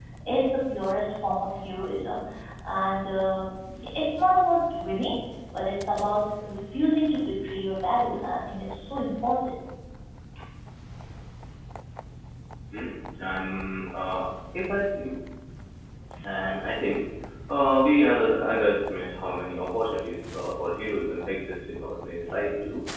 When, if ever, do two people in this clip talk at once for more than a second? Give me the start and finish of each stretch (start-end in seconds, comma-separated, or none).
none